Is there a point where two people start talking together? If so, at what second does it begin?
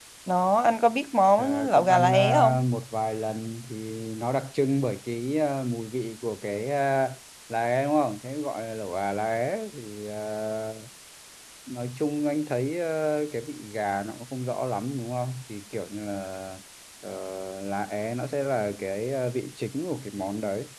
1.4 s

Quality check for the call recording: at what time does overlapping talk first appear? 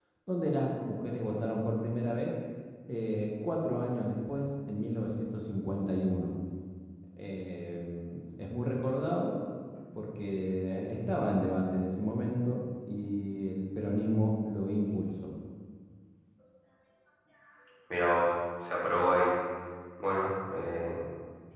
none

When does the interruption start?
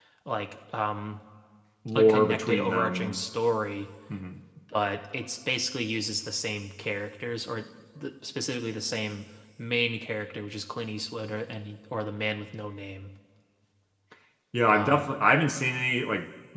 2.0 s

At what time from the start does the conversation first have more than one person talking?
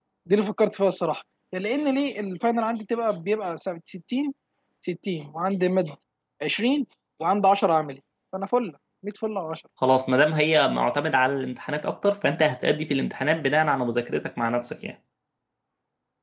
none

